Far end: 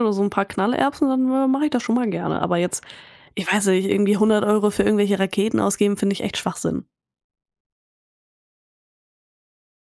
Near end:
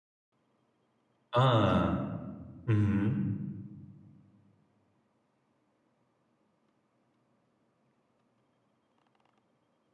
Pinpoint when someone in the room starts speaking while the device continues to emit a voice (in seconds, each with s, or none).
1.3 s